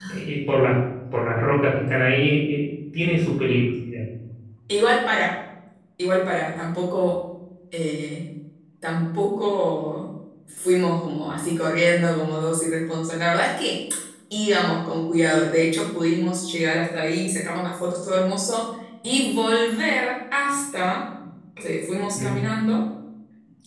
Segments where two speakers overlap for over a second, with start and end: none

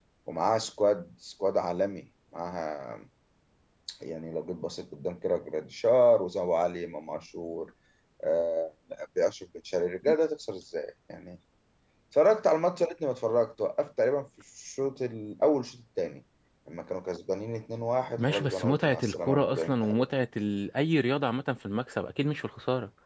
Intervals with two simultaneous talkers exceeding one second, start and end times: 18.2-20.1

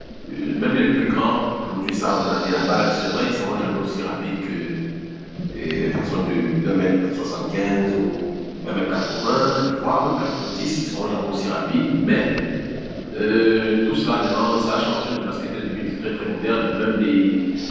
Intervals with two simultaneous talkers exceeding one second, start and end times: none

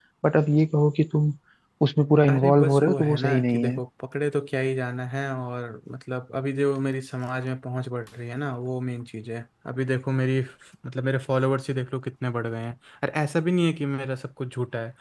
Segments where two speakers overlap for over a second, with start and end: 2.3-3.6

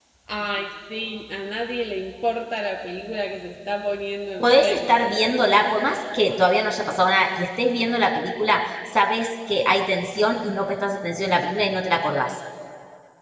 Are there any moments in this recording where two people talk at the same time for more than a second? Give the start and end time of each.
4.4-5.7

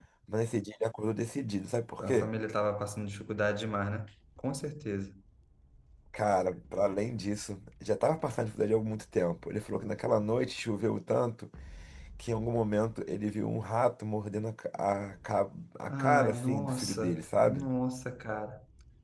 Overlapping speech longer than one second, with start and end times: 15.9-17.7

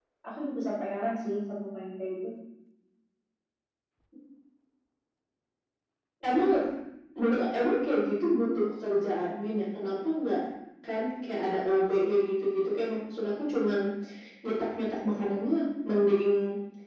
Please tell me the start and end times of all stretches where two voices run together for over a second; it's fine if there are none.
none

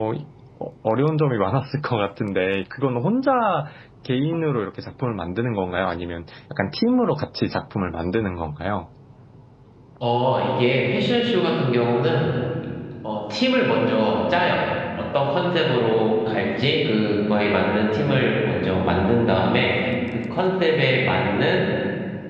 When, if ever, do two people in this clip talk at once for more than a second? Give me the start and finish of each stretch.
none

